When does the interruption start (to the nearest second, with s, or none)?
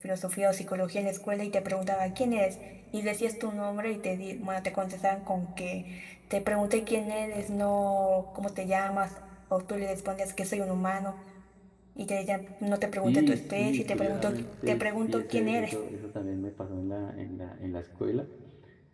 13 s